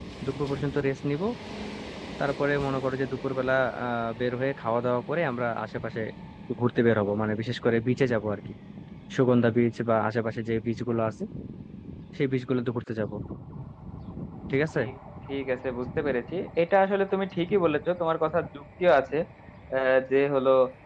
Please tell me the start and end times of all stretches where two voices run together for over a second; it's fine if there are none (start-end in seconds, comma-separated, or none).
none